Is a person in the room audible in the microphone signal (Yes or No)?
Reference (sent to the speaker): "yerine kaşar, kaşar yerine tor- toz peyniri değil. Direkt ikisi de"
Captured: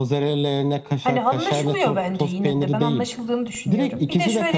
Yes